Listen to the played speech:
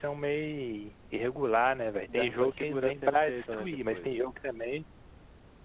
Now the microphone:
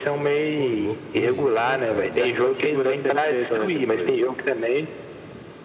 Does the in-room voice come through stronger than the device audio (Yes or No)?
No